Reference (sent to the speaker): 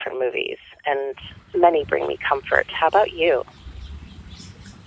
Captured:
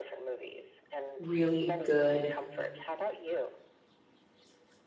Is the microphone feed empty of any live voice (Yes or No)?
No